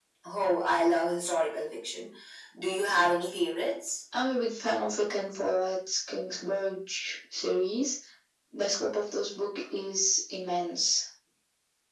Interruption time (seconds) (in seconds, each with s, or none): none